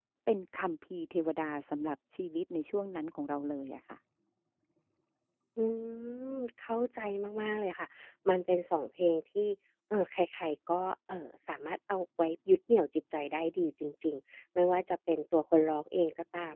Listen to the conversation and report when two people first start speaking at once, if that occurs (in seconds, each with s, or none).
none